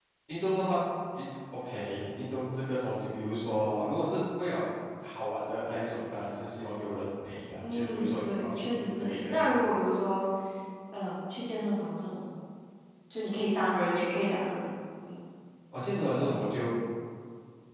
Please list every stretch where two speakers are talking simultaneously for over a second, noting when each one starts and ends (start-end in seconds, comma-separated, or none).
7.6-9.7